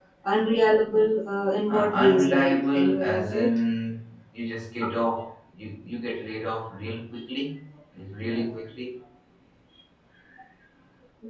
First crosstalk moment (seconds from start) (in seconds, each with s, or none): 1.7 s